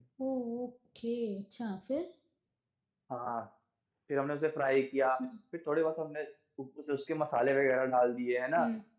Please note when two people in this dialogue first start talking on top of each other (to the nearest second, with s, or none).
none